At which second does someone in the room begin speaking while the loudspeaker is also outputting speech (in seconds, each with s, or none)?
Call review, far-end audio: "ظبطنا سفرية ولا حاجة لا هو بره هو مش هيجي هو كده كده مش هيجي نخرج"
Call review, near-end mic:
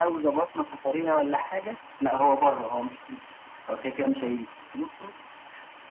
none